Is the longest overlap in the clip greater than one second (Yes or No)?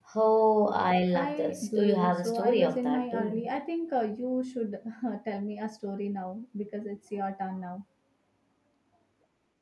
Yes